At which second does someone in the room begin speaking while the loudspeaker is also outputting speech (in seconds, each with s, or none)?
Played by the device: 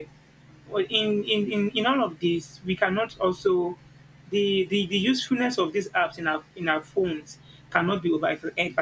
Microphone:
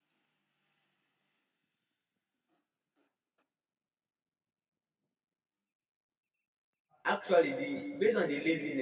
7.0 s